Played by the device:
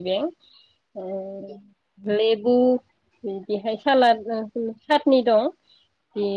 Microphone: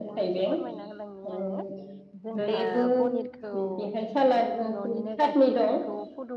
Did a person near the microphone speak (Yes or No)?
Yes